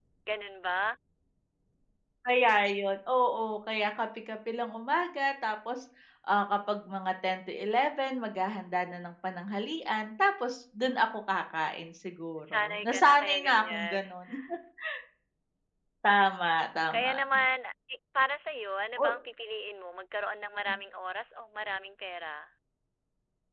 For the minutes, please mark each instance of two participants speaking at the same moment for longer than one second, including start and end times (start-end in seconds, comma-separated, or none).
12.5-14.0